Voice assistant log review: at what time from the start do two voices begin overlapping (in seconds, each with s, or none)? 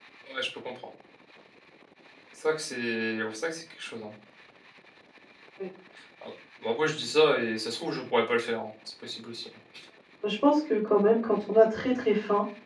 none